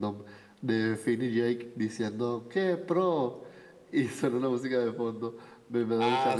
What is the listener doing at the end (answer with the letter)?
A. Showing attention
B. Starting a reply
A